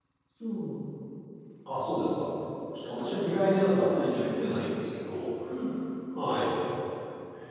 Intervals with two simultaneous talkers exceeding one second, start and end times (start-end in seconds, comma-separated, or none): 2.9-4.7